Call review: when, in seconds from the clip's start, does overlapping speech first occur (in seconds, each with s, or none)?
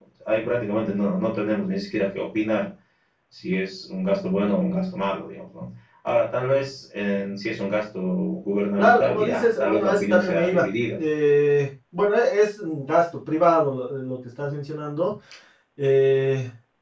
8.8 s